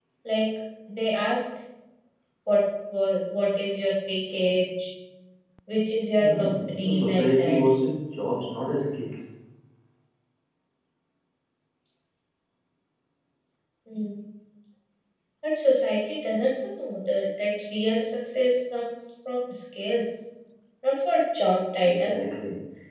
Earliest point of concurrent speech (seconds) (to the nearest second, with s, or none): 6 s